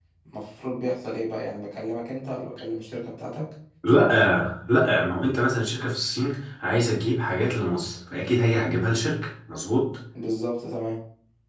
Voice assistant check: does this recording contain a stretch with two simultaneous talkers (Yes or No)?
No